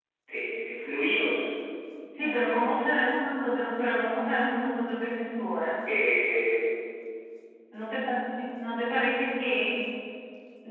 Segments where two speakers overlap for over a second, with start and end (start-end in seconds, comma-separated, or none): none